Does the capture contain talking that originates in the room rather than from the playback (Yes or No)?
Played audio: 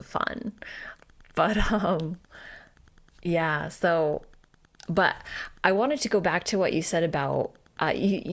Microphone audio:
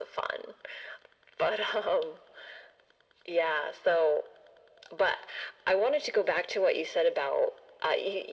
No